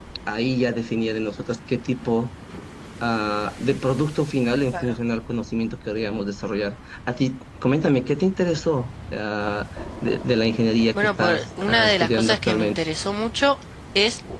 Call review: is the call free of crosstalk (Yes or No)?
No